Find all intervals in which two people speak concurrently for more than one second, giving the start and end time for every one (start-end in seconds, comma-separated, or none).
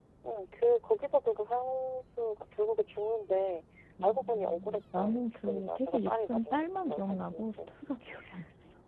4.0-7.6